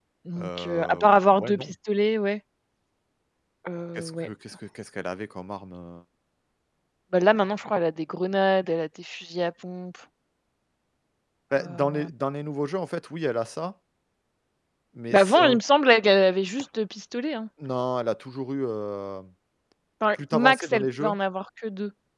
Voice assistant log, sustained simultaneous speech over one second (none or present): present